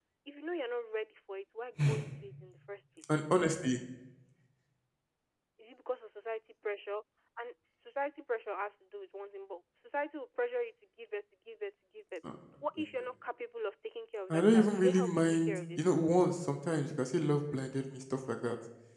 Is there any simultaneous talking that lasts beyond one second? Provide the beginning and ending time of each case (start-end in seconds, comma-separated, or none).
14.3-15.8